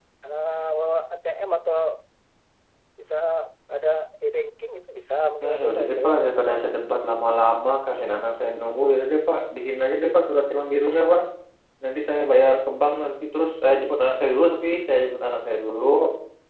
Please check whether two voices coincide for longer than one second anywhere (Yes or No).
Yes